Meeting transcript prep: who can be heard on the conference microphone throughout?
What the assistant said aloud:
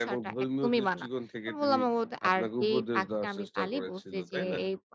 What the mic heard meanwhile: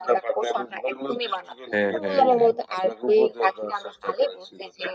both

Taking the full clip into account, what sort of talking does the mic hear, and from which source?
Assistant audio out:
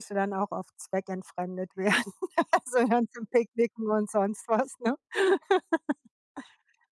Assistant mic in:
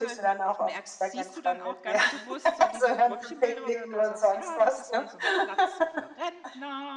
both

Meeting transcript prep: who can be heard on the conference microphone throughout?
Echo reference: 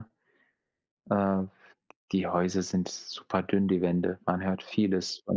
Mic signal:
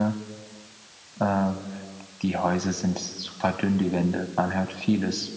echo only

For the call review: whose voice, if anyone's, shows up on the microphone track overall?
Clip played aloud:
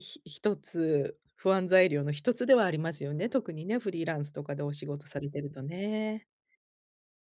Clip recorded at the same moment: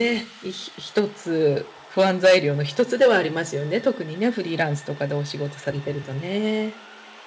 echo only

